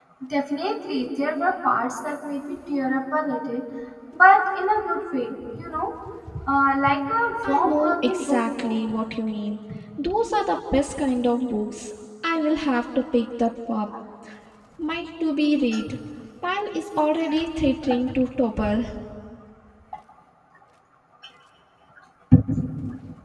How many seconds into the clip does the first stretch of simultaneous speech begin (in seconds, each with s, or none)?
7.4 s